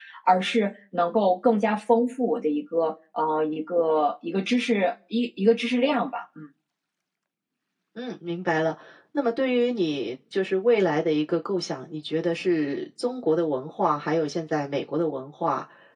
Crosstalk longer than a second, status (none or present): none